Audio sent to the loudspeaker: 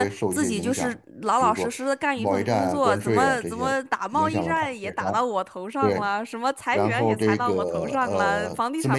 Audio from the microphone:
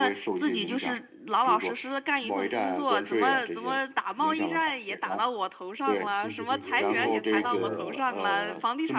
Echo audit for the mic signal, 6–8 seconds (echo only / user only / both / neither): both